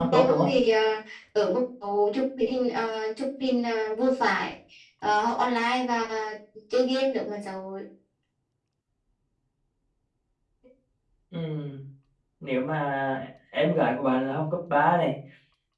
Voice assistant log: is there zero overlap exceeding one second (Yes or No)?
Yes